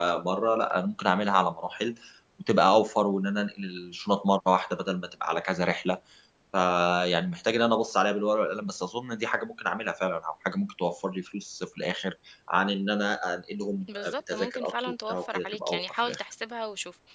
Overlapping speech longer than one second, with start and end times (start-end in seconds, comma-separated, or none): 13.9-16.2